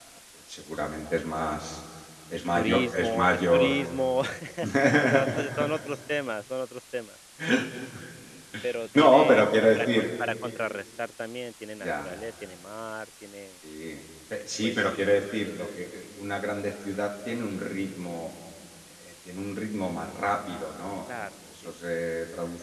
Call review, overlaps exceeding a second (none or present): present